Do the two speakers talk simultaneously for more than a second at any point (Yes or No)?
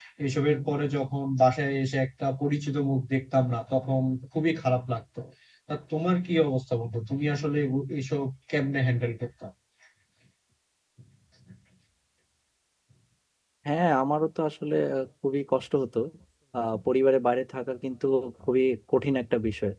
No